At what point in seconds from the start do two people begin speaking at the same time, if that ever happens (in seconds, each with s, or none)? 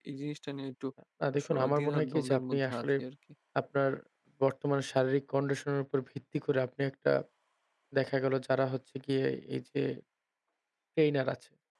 1.4 s